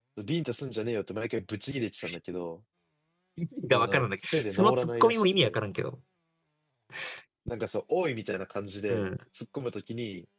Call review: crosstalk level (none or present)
present